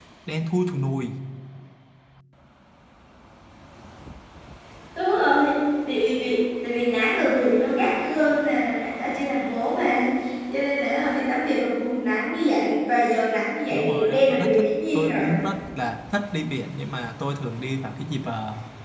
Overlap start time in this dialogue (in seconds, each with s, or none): 13.7 s